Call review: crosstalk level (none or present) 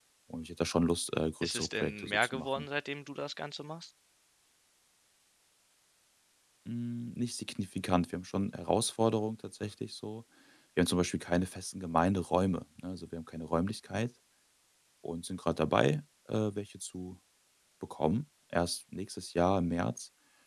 present